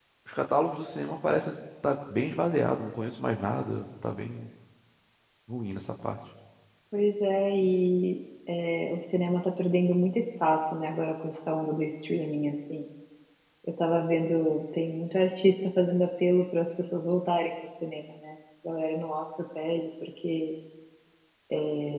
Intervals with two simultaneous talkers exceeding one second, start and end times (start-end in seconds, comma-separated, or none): none